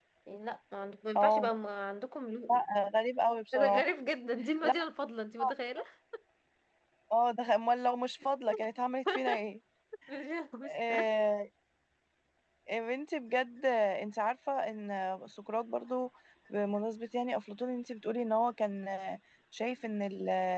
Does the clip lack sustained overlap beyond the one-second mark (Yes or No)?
Yes